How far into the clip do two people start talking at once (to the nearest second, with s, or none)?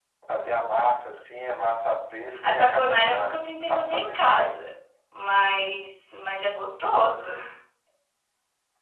2 s